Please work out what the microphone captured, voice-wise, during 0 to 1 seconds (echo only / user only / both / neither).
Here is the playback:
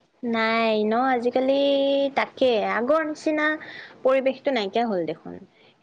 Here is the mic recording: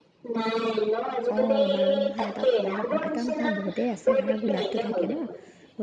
echo only